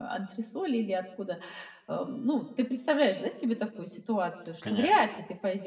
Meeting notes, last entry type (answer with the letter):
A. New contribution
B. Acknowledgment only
B